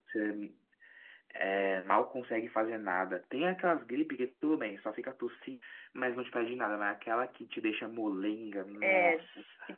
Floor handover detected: Yes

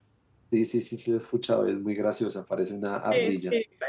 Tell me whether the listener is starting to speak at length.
Yes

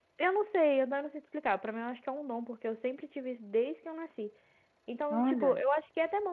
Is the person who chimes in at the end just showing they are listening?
Yes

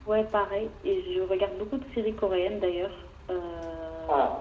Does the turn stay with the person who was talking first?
No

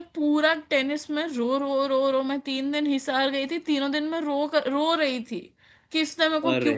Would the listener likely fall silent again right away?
Yes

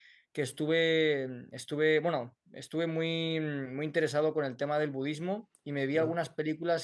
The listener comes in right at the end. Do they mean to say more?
No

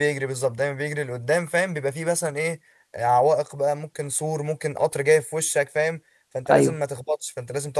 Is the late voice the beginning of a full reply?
No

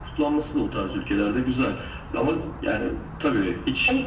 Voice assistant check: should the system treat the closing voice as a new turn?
No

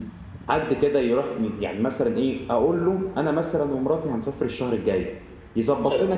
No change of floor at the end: Yes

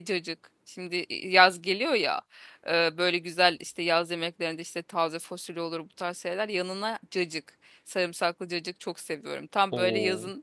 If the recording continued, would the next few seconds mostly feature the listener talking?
No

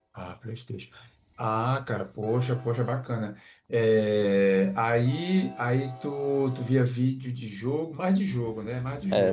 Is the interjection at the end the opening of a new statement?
Yes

